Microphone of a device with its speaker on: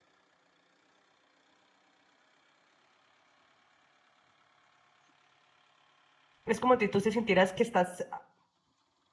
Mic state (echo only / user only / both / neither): user only